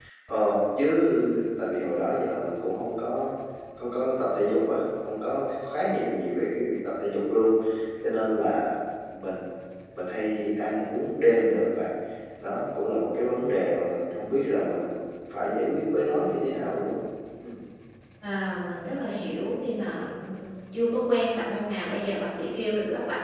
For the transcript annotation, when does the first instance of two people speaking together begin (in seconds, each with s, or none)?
none